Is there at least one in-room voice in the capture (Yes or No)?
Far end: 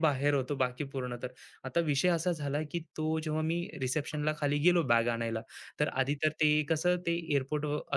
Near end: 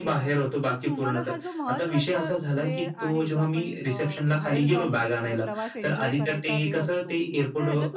Yes